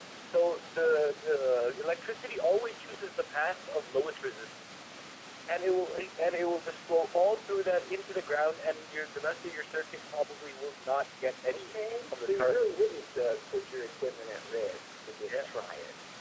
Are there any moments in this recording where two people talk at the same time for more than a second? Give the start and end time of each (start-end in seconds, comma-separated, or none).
none